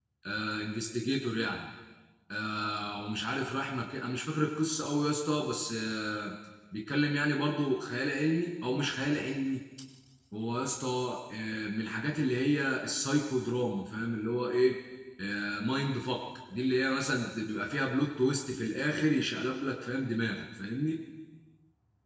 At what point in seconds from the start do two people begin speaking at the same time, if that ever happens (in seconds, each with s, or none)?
none